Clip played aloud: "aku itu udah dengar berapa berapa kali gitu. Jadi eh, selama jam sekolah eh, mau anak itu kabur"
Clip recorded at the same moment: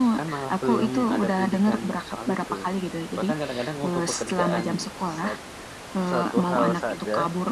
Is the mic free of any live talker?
No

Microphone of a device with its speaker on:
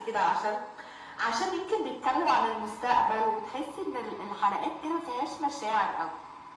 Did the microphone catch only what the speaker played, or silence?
Yes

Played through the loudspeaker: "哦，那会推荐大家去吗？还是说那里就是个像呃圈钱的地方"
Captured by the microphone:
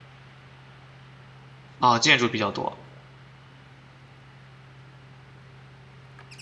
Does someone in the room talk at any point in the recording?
Yes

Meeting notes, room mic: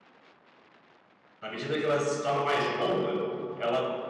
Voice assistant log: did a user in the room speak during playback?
Yes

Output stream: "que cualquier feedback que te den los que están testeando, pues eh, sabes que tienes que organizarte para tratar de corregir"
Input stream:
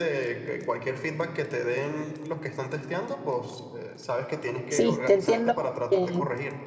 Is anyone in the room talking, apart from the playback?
Yes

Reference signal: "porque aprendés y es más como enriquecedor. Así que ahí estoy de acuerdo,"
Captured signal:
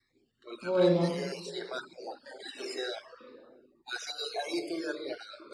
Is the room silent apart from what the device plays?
No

